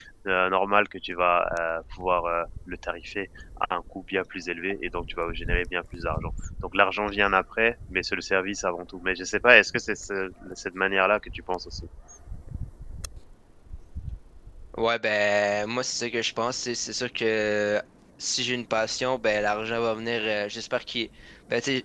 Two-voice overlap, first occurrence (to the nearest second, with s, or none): none